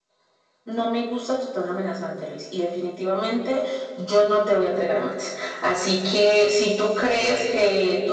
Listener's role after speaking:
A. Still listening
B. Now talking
A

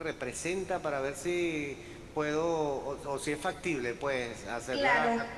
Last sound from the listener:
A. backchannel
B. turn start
A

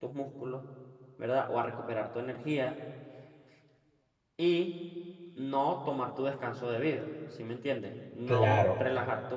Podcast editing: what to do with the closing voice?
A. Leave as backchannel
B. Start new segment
A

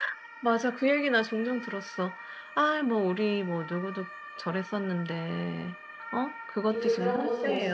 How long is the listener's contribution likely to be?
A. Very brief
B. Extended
B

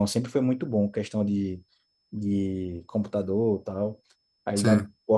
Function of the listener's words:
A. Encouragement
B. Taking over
A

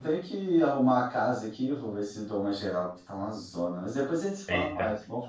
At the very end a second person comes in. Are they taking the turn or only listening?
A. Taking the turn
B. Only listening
A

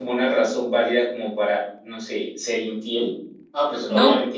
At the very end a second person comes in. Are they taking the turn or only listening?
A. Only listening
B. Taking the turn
A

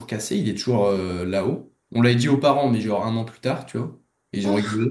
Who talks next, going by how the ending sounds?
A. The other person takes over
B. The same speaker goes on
B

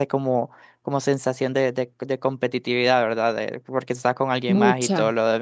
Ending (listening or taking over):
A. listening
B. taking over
A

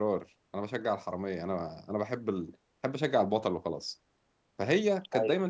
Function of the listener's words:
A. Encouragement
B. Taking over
A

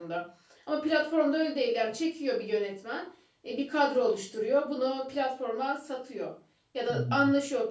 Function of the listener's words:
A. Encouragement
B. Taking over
A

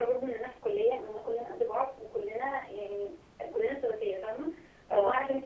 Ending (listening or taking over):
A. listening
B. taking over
A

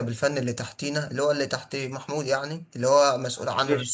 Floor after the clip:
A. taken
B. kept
B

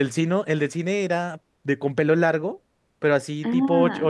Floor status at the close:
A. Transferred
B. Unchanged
B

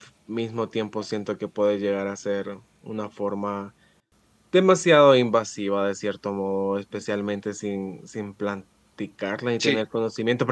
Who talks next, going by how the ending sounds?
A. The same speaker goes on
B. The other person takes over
A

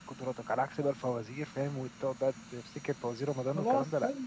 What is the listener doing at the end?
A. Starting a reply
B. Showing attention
A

